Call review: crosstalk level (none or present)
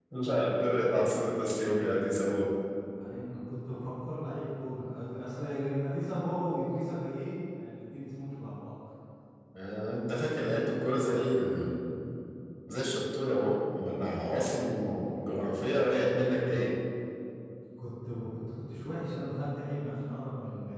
none